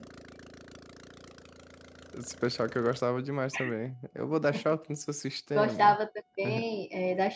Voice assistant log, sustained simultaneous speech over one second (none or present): none